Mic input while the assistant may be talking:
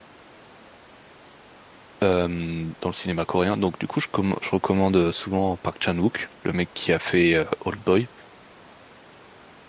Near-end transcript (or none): euh, dans le cinéma coréen. Donc du coup, je, comm- je recommande souvent Park Chan-wook, le mec qui a fait euh, Old Boy.